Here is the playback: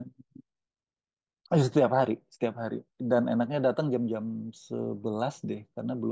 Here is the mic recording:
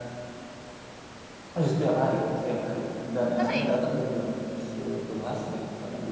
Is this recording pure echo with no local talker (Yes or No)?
No